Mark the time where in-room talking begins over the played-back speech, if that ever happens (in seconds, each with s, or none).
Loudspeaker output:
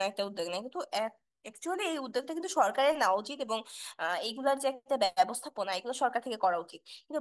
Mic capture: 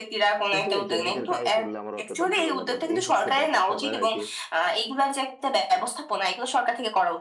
0.5 s